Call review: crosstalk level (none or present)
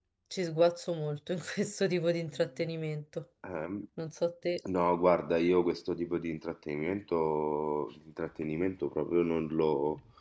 none